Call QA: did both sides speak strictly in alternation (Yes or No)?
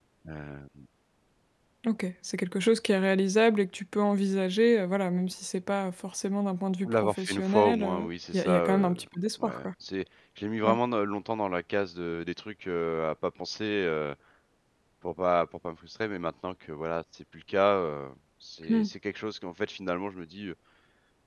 No